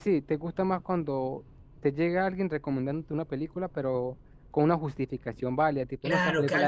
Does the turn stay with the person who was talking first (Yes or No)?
No